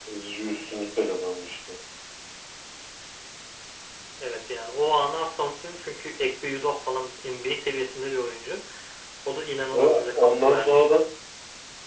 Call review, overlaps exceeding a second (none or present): present